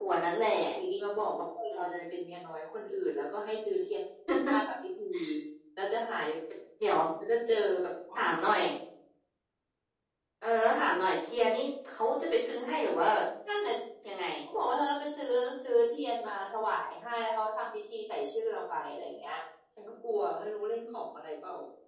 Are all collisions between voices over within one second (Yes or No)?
Yes